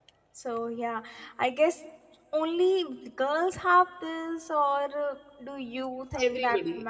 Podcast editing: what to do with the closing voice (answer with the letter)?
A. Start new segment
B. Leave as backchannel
A